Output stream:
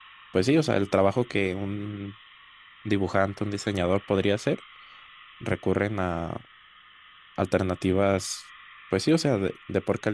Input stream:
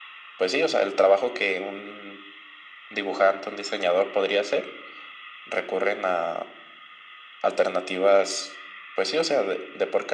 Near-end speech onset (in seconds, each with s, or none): none